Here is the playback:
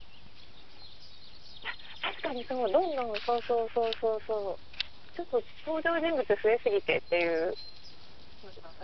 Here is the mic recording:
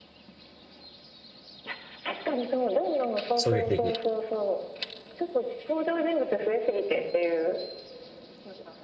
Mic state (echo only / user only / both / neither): both